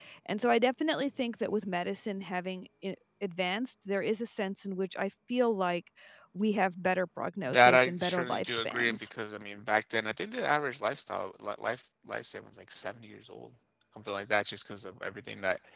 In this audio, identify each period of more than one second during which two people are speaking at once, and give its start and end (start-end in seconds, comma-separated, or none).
7.5-9.1